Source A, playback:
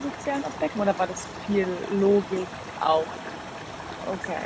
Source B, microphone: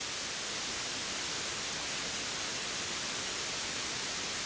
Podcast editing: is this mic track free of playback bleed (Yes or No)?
Yes